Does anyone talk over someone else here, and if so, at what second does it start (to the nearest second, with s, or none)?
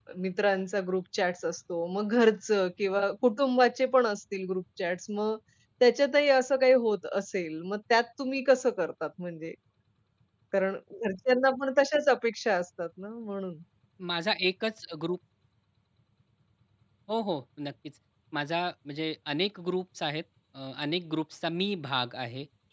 none